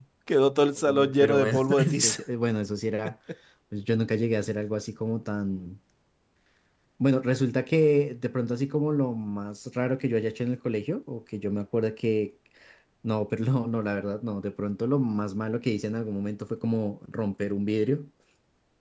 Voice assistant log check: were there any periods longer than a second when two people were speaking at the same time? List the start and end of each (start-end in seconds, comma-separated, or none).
0.8-2.2